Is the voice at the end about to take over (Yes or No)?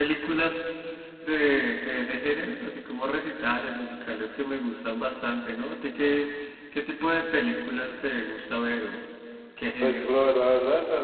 Yes